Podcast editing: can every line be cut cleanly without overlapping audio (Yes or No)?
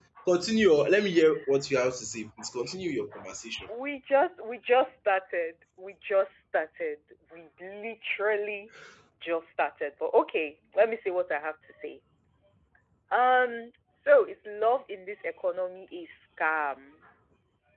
Yes